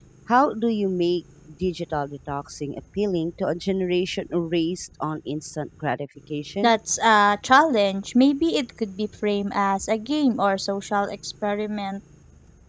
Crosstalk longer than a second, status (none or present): none